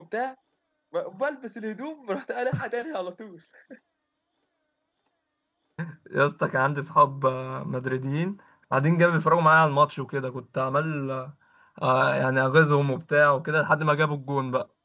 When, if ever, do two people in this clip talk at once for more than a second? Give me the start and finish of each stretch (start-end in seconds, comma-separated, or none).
none